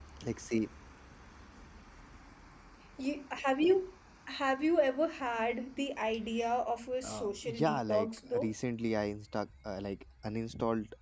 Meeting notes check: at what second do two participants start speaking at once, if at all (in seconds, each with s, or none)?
7.0 s